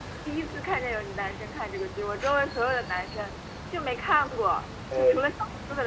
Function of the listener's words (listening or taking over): listening